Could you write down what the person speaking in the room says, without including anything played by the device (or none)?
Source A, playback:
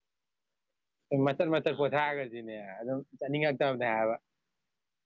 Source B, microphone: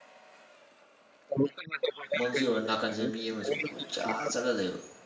ꯃꯪꯁꯤ ꯑꯣꯏ ꯅꯥꯀꯟꯁꯦ ꯃꯤ ꯑꯃꯁꯨꯡ ꯀꯨꯣꯏꯆ ꯆꯠꯂ ꯂꯩꯕ